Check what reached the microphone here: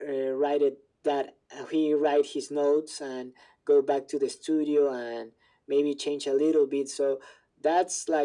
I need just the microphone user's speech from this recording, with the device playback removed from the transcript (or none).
none